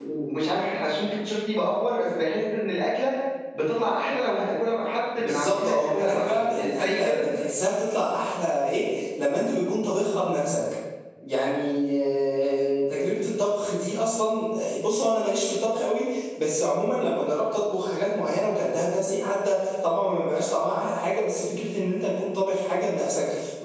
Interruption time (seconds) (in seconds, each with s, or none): 5.1 s